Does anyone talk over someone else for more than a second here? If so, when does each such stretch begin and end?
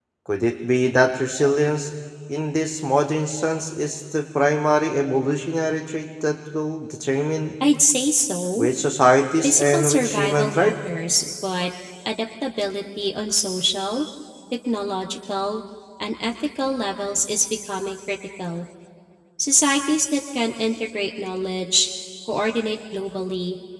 9.4-10.7

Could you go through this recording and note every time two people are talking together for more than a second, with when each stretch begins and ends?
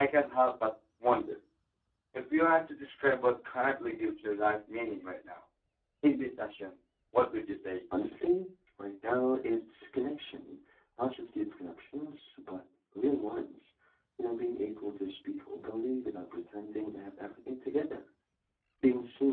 none

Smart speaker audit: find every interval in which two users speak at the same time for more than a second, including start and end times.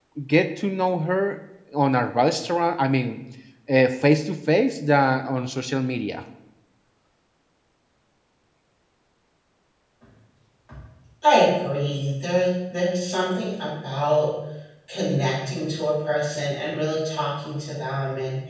none

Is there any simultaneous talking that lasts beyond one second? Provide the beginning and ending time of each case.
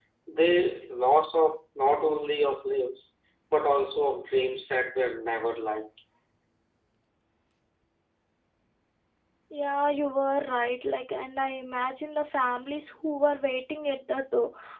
none

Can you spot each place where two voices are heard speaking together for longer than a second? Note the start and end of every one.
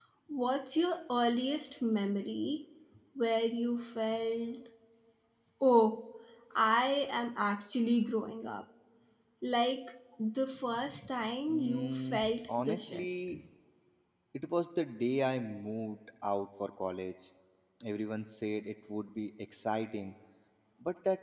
11.5-13.2

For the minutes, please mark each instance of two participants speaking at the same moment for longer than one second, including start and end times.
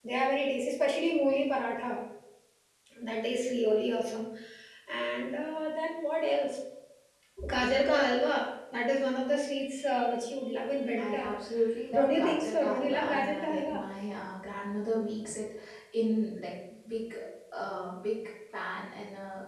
12.0-13.8

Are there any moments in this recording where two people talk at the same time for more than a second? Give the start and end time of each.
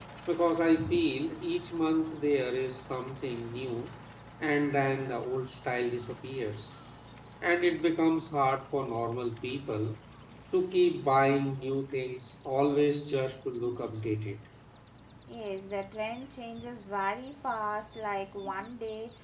none

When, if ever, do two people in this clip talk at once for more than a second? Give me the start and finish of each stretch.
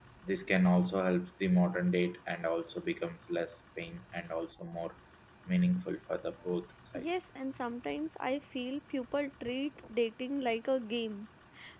none

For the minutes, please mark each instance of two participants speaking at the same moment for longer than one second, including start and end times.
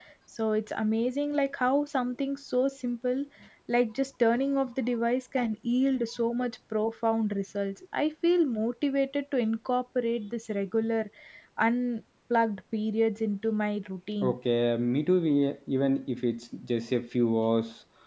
none

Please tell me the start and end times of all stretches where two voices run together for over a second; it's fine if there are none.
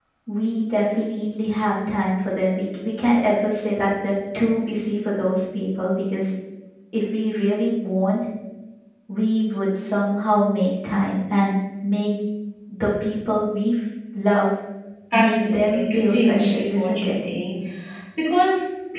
15.1-17.2

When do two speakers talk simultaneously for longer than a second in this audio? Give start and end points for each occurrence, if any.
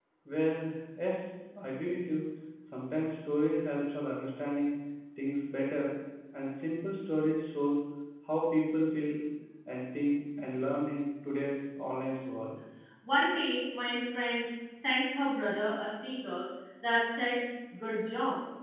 none

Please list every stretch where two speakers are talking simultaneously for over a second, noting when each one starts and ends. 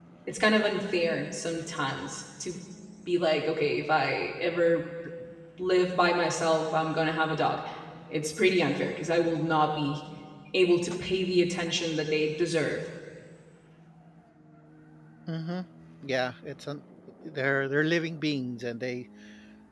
none

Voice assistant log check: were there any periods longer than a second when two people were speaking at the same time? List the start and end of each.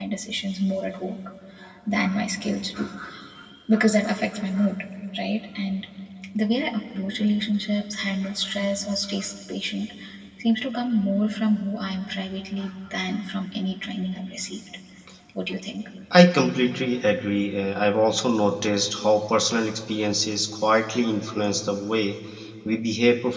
none

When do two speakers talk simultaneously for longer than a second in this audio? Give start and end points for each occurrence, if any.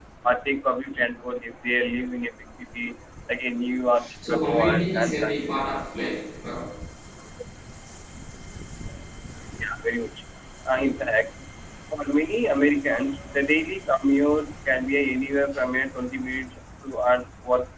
4.2-5.8

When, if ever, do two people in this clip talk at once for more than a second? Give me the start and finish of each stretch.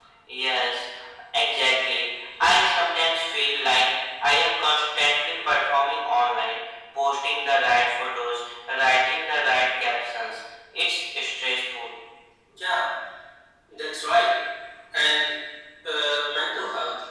none

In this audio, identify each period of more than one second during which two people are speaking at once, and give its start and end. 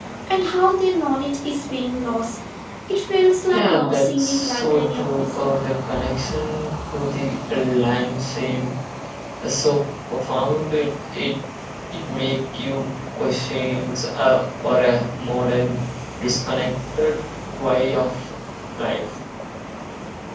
3.5-5.6

